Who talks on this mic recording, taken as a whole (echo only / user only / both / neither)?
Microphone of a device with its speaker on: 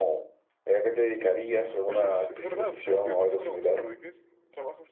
both